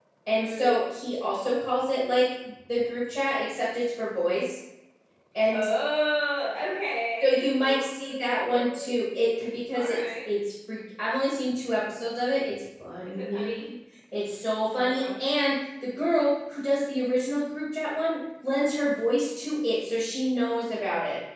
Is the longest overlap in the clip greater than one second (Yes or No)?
Yes